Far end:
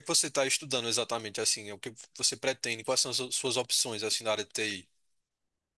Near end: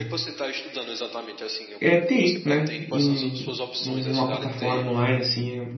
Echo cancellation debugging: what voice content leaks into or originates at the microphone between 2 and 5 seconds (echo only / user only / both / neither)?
both